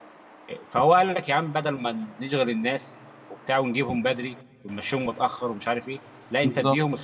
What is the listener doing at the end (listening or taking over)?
listening